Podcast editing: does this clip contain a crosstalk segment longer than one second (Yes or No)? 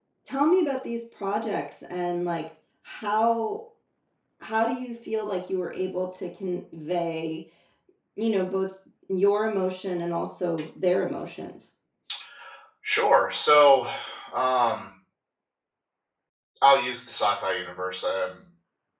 No